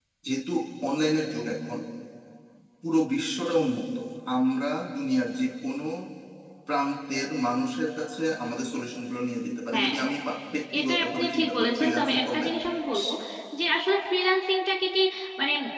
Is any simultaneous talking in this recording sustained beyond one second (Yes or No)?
Yes